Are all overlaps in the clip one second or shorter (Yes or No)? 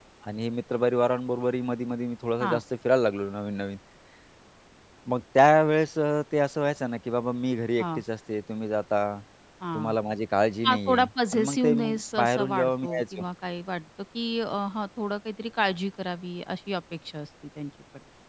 No